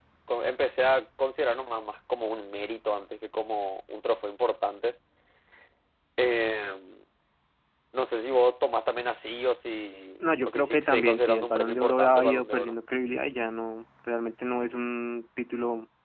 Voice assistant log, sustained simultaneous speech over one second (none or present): present